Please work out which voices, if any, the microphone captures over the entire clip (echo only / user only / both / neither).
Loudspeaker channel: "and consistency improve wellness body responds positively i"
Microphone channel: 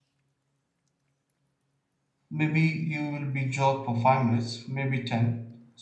user only